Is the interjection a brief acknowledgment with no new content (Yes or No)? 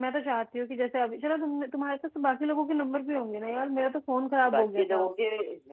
No